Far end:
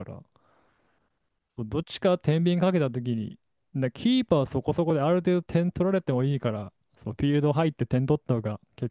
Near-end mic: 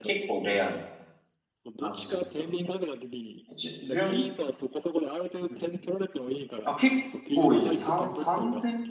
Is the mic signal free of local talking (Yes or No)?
No